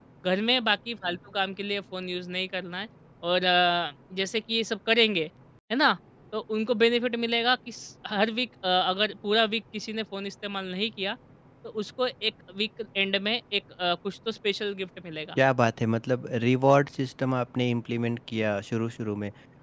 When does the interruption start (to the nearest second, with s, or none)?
none